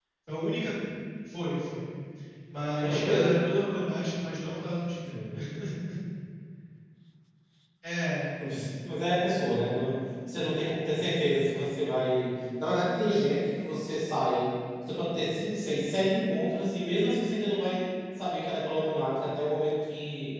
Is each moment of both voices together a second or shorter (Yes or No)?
Yes